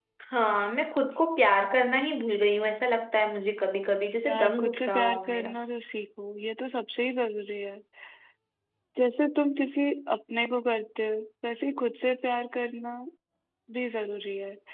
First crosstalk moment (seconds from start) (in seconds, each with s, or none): 4.2 s